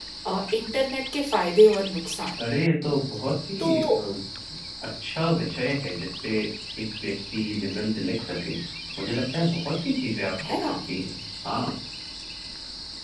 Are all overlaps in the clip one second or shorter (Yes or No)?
Yes